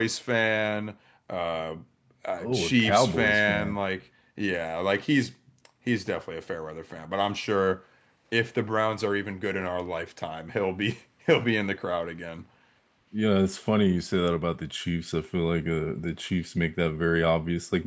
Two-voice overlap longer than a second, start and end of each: 2.4-3.8

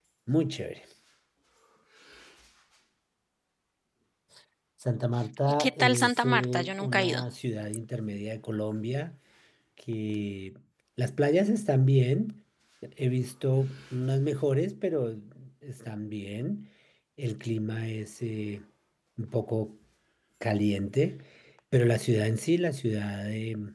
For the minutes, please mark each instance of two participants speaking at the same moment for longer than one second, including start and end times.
5.6-7.2

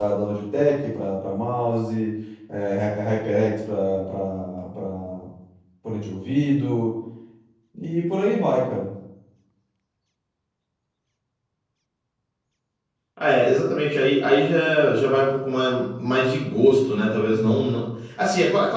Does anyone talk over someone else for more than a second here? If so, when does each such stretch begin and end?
none

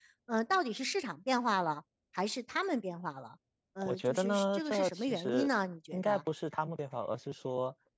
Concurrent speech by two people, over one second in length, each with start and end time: 3.9-5.5

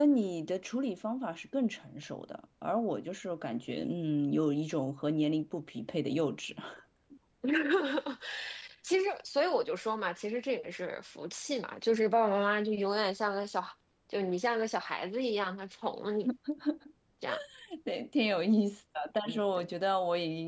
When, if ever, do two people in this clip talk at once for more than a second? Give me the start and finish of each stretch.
none

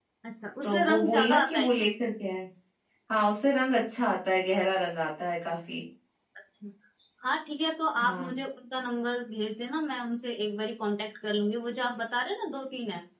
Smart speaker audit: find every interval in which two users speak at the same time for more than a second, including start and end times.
0.6-1.9

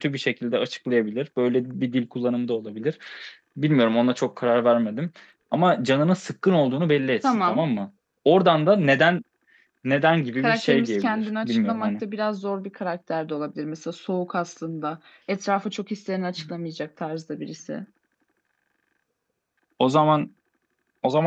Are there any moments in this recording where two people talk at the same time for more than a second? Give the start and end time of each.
10.4-11.9

